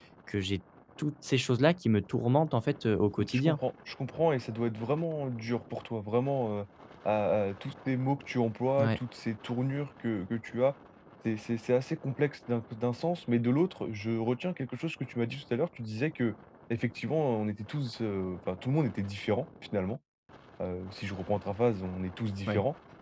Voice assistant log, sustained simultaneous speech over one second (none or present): none